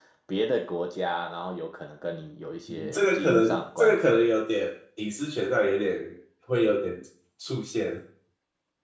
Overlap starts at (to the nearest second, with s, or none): 3 s